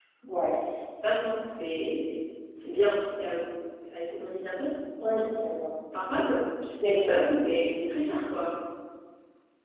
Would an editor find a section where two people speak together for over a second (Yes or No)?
No